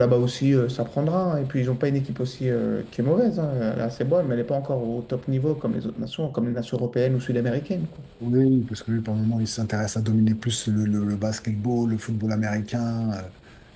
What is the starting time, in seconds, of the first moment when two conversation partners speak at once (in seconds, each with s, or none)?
none